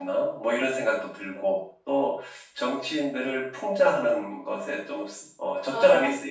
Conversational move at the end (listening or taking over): listening